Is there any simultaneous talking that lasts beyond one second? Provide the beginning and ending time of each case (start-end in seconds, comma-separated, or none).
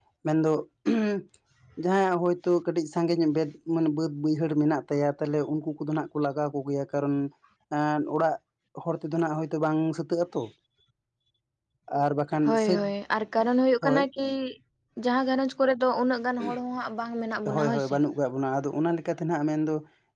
none